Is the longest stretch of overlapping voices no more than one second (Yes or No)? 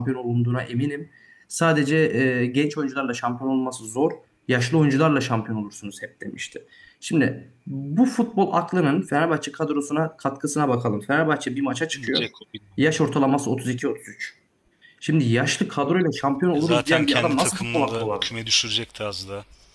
No